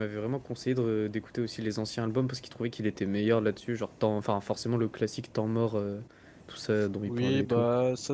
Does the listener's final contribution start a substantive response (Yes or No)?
Yes